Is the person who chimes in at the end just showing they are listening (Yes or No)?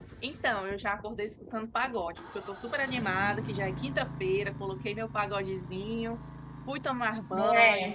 Yes